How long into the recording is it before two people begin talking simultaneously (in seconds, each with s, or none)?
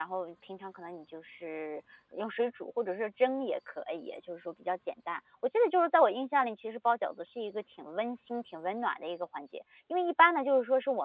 none